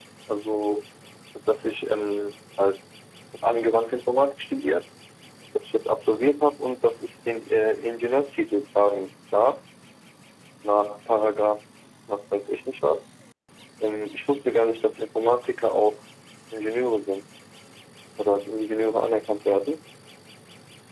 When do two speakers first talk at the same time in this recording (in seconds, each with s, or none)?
none